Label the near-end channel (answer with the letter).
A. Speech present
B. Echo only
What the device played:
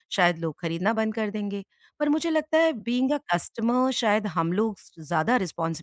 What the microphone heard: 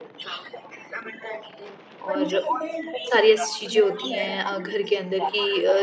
A